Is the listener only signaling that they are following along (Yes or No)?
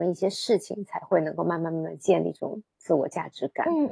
No